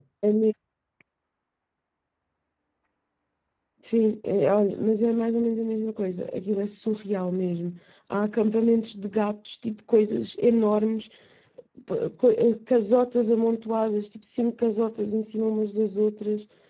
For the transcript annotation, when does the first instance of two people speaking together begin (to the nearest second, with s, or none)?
none